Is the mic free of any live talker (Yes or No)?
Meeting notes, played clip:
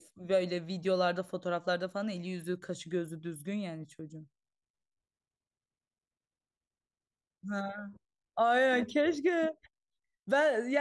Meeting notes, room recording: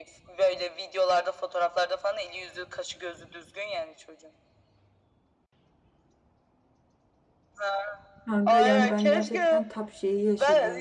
No